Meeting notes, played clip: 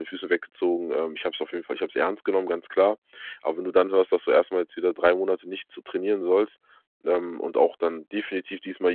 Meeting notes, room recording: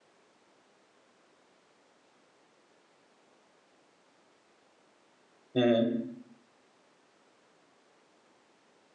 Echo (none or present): none